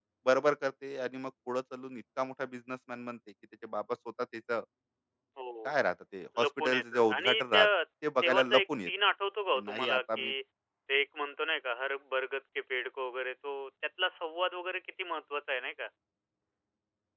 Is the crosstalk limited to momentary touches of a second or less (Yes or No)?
No